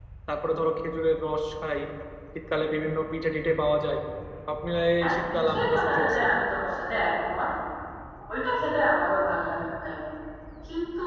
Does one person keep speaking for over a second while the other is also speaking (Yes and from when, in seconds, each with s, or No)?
Yes, from 5.0 s